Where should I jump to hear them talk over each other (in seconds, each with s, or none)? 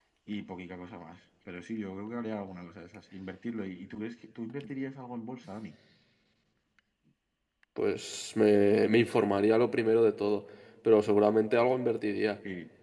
none